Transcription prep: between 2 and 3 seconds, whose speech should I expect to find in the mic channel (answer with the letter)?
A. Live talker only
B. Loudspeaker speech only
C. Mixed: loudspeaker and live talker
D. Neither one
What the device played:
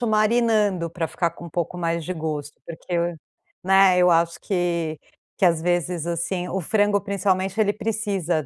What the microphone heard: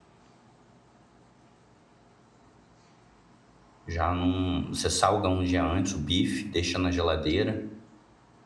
D